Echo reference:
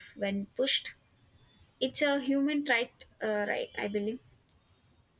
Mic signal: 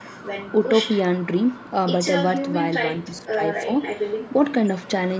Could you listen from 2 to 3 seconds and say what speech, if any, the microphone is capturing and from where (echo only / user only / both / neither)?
both